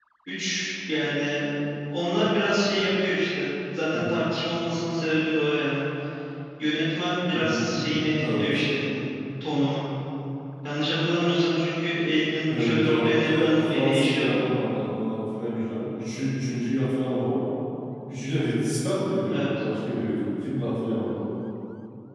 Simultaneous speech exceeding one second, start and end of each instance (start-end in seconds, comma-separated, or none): 12.5-14.4